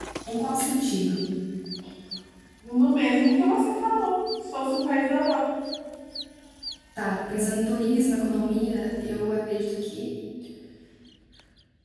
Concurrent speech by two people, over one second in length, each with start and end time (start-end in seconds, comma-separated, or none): none